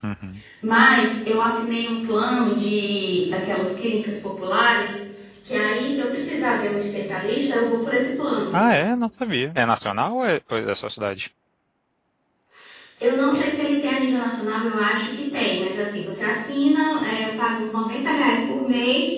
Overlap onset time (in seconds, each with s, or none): none